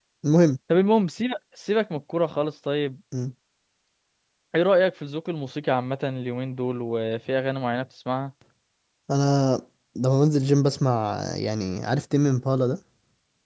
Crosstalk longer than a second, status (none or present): none